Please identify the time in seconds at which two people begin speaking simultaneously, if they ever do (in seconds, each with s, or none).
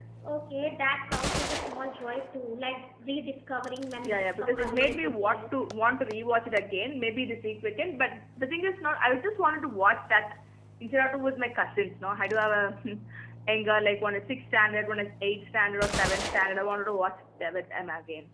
4.0 s